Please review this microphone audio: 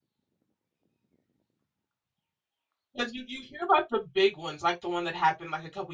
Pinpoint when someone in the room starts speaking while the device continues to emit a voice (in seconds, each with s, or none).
2.9 s